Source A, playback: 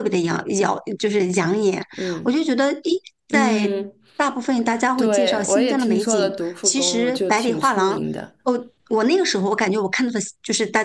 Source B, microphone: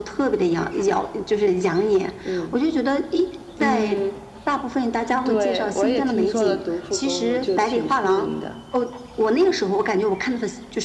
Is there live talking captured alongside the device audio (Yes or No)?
No